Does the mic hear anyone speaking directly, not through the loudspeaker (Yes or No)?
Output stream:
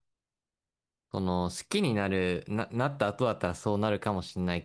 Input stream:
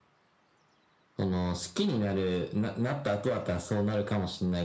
No